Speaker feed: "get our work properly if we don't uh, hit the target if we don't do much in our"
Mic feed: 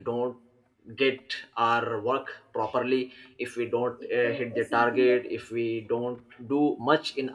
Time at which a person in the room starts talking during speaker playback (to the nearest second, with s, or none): 4 s